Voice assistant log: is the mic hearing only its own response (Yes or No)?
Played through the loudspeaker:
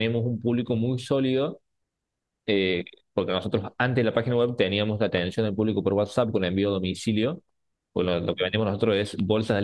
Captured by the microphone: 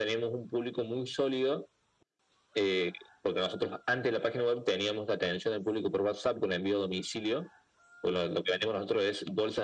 Yes